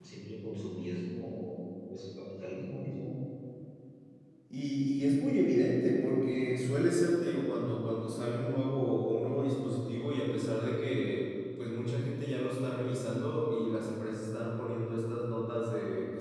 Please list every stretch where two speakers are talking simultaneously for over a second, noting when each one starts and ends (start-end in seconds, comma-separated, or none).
none